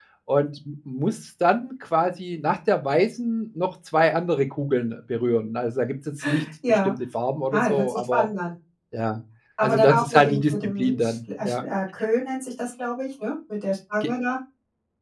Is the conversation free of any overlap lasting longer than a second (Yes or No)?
No